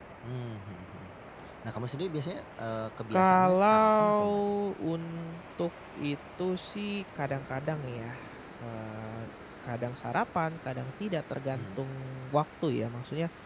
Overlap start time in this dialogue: 3.1 s

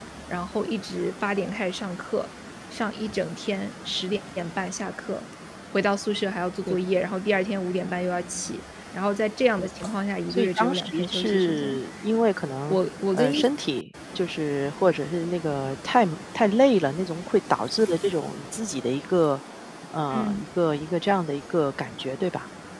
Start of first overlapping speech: 10.3 s

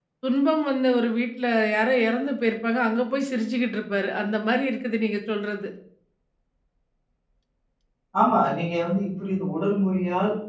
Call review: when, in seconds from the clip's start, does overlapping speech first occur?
none

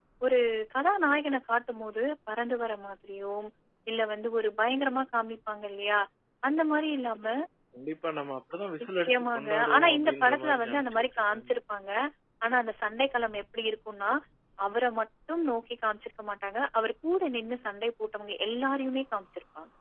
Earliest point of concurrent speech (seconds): 8.8 s

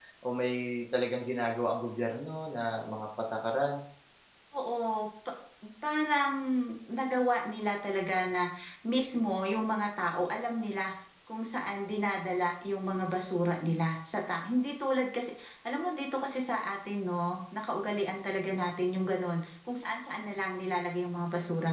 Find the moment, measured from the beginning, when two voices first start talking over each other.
none

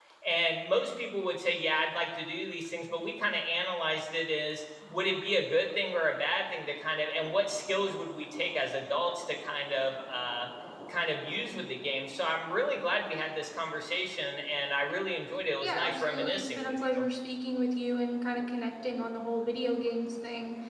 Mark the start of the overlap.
15.6 s

